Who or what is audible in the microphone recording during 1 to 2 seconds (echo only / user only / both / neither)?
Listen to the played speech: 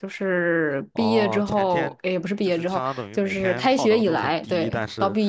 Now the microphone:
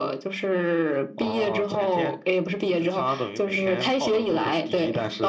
echo only